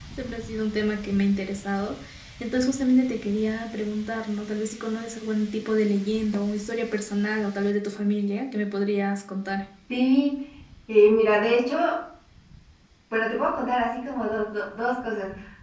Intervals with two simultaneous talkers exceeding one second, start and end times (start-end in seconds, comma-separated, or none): none